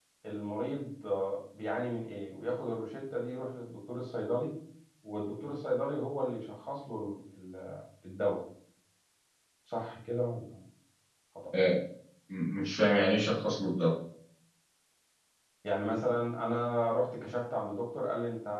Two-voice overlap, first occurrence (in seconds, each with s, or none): none